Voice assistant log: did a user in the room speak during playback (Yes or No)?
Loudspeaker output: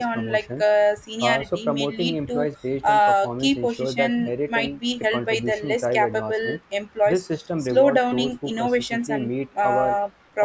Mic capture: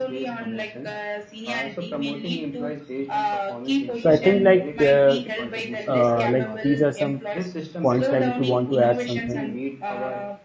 Yes